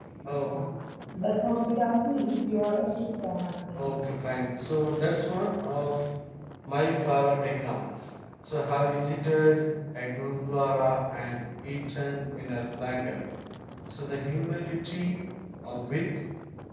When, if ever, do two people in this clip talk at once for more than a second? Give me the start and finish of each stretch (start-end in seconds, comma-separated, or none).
none